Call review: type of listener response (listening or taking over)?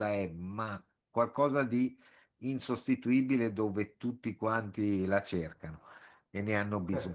listening